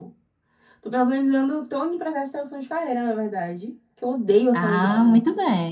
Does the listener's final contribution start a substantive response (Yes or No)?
Yes